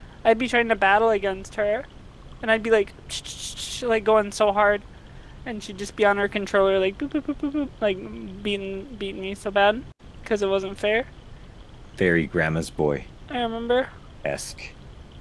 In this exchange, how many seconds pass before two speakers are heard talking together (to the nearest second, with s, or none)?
none